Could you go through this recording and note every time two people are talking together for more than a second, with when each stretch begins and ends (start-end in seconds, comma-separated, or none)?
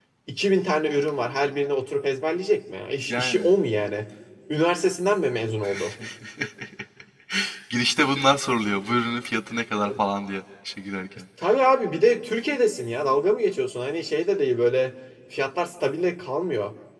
none